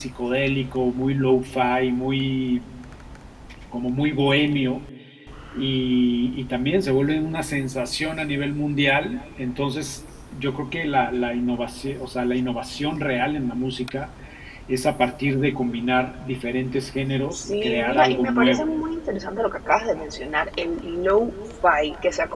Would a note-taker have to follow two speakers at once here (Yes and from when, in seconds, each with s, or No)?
Yes, from 17.3 s